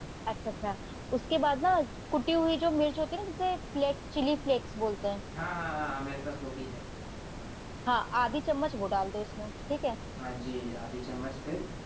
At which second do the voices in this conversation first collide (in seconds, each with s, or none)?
none